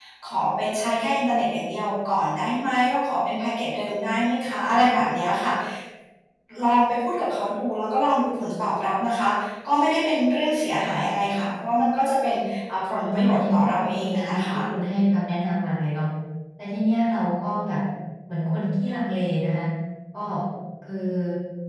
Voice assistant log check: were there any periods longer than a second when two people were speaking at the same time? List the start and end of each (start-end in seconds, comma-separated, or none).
13.0-14.6